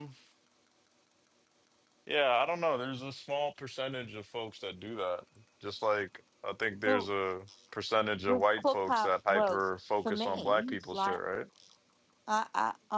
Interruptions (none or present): present